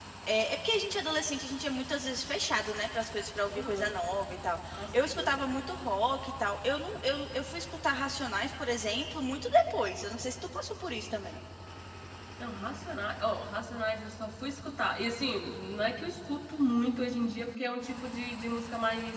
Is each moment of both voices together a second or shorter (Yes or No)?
Yes